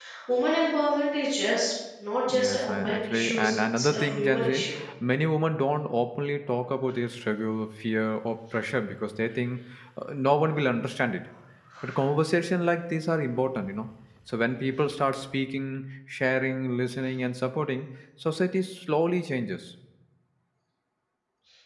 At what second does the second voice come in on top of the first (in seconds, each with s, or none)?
2.3 s